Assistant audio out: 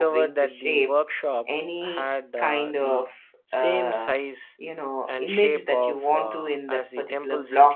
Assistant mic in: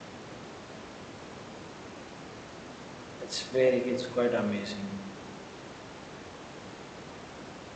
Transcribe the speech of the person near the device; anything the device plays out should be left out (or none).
It's very. It's quite amazing.